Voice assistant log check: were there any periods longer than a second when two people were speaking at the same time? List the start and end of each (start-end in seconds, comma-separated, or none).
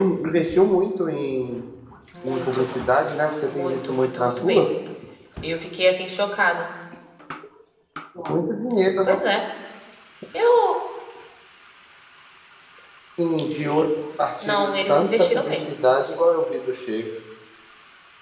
3.5-4.7, 14.4-15.7